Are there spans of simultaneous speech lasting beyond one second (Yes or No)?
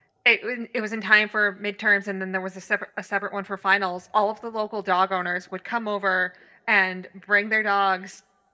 No